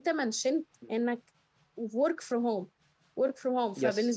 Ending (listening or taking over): listening